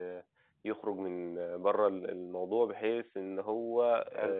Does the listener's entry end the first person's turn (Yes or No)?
No